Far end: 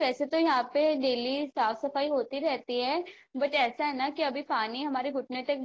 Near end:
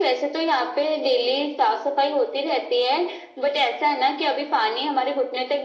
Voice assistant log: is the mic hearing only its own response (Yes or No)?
Yes